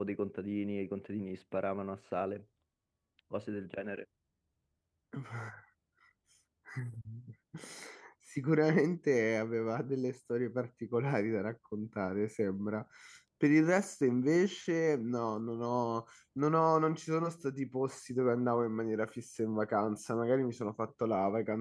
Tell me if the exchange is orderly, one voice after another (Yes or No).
Yes